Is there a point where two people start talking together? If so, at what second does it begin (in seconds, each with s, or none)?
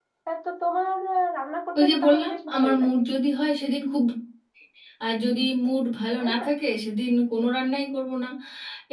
1.8 s